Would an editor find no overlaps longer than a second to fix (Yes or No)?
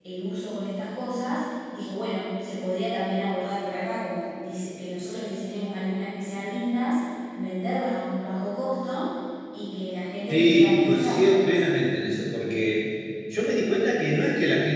No